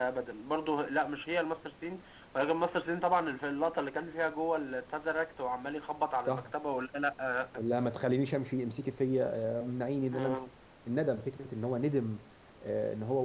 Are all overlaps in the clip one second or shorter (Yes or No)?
Yes